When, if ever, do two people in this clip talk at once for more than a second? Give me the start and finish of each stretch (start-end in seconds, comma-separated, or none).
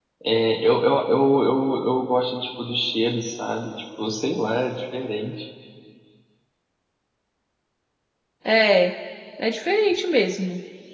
none